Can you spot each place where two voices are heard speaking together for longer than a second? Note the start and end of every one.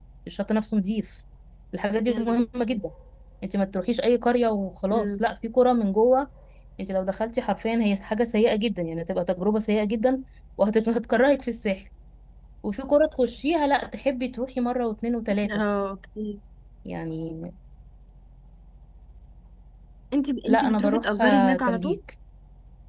20.4-22.0

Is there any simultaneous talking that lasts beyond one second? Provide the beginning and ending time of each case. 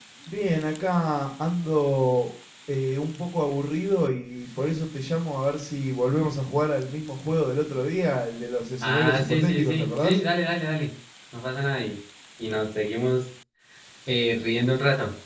8.8-10.2

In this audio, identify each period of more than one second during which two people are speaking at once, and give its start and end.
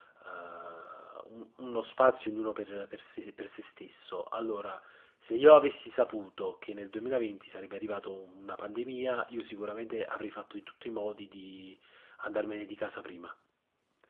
none

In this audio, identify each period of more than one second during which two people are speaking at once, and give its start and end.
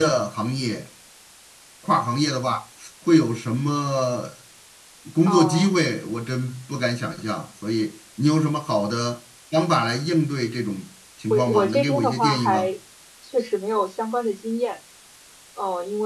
11.3-12.7

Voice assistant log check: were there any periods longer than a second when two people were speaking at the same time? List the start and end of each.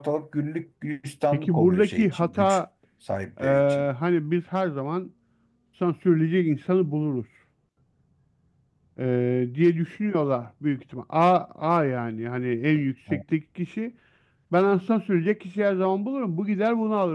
1.3-2.6

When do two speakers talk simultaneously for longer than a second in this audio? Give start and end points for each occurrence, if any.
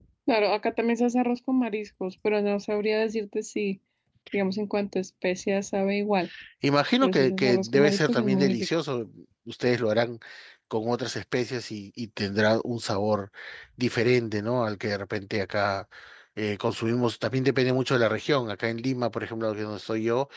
7.0-8.7

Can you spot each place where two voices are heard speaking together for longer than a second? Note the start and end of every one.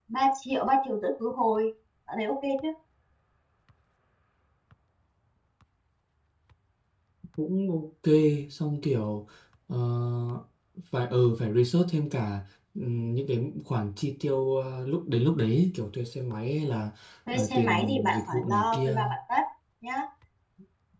17.3-19.0

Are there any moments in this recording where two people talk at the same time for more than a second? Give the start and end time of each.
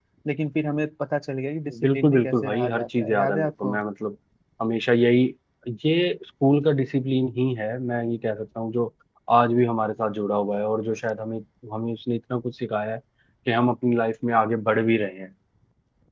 1.8-3.8

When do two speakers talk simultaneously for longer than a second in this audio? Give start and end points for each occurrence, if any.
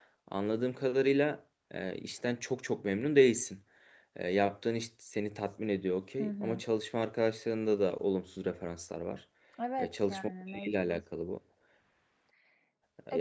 9.8-11.0

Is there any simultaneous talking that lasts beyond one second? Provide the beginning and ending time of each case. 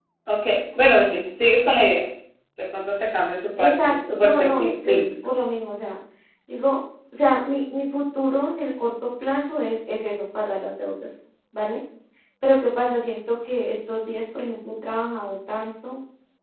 3.6-5.0

